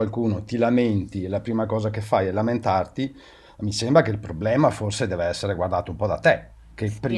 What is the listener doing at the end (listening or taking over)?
taking over